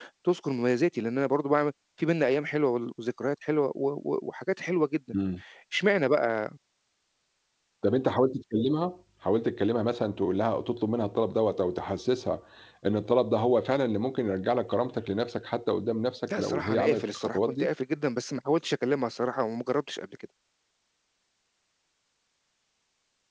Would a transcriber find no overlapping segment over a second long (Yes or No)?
No